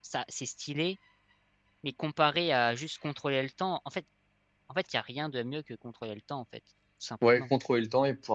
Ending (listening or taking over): taking over